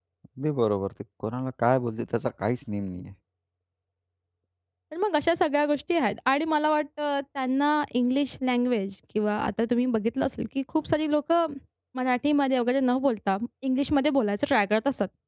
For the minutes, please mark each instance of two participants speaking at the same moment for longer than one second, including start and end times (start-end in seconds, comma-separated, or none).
none